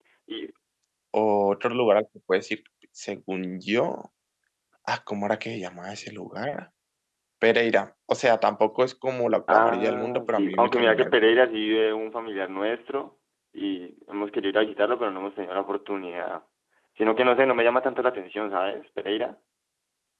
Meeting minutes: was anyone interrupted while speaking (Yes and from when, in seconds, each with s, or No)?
Yes, from 9.5 s